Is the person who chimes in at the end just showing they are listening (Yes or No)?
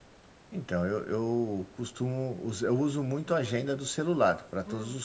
No